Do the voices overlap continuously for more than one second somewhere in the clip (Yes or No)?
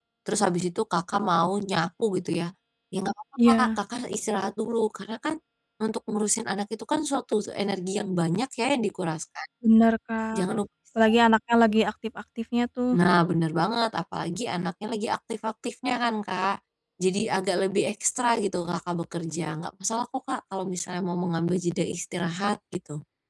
No